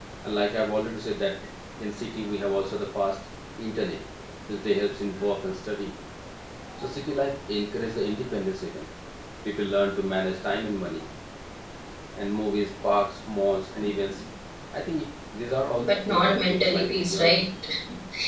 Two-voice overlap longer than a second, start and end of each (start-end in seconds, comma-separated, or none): 15.8-17.4